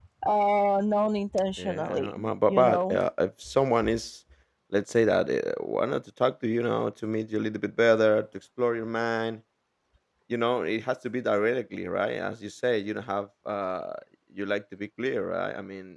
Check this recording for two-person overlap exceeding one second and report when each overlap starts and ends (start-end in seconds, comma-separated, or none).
1.6-3.0